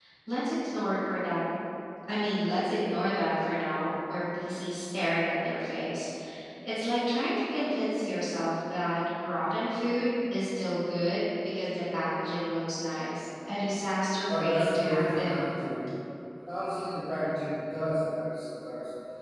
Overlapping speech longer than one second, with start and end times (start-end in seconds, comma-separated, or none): 14.3-15.5